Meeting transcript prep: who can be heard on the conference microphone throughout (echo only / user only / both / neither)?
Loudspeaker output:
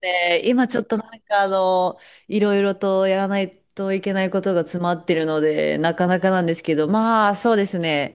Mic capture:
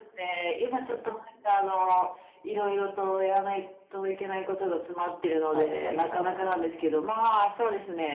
both